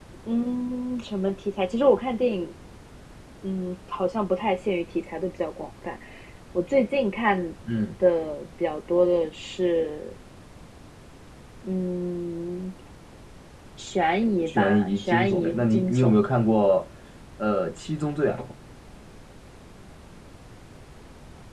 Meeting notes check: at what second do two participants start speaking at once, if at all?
14.5 s

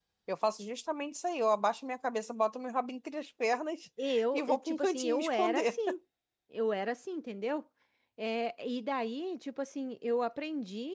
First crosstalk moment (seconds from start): 4.3 s

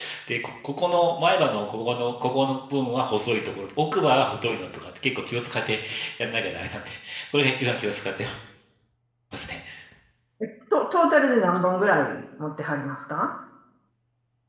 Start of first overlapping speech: none

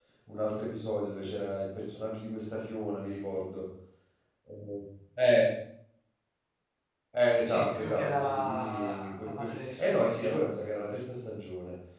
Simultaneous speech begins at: 7.4 s

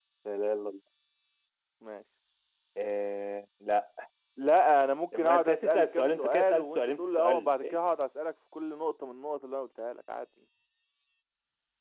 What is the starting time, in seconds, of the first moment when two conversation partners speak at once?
5.1 s

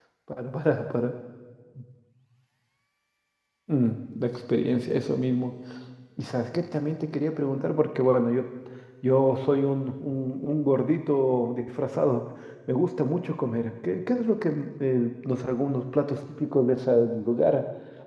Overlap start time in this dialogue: none

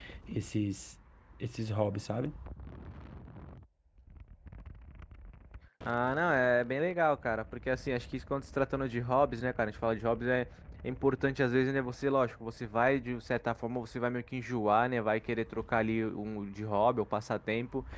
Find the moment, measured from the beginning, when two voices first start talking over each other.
none

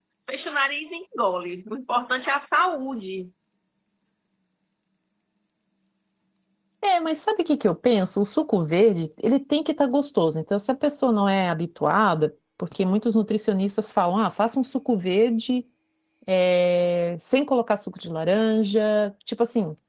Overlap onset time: none

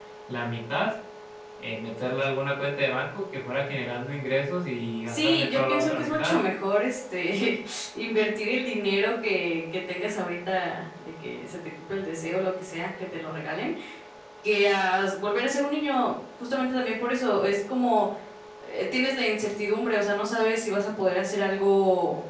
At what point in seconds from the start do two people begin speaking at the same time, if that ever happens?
5.1 s

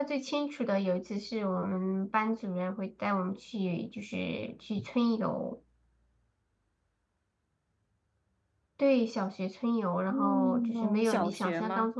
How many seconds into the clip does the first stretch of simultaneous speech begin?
10.1 s

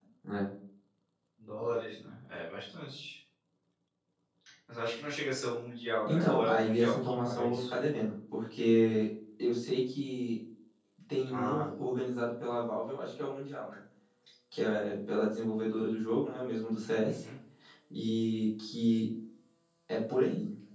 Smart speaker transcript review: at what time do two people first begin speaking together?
6.0 s

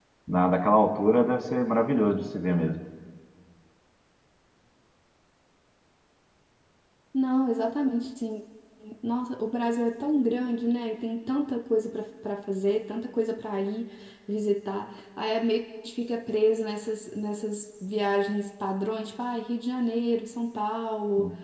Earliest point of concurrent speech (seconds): none

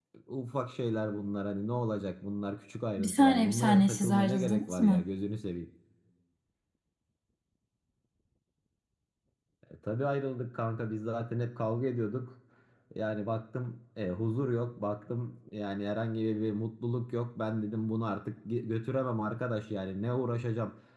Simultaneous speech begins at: 3.0 s

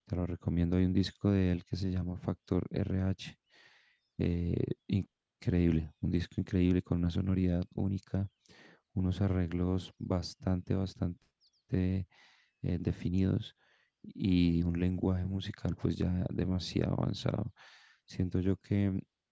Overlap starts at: none

